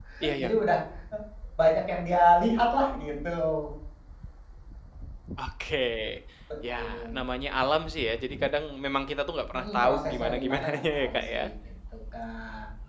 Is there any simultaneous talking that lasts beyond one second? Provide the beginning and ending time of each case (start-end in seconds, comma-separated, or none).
9.5-11.4